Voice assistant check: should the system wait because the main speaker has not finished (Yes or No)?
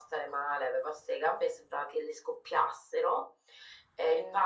Yes